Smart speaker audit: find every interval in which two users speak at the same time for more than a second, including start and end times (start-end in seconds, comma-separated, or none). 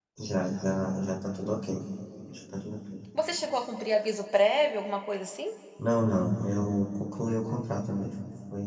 none